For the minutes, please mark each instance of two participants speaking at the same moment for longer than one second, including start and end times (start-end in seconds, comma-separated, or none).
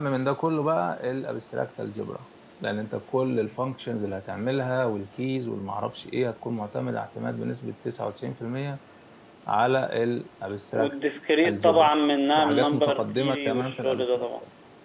12.3-14.2